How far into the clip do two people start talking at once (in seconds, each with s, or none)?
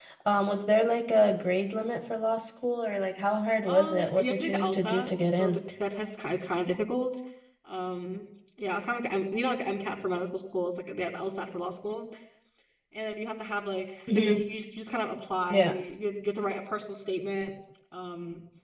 3.6 s